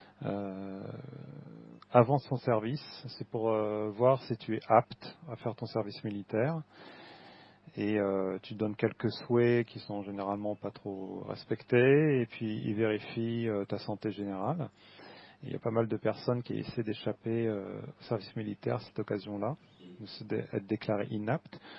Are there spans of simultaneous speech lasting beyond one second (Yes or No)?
No